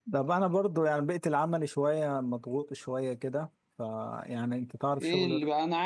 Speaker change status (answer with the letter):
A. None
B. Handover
B